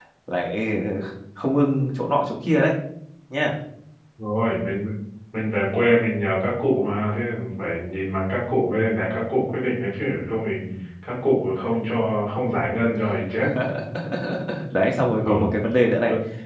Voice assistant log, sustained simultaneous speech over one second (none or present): none